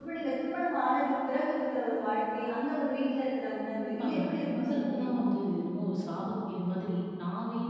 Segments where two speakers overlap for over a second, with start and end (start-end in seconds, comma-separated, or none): 3.8-5.2